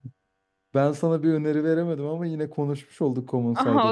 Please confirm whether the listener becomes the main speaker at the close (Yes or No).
Yes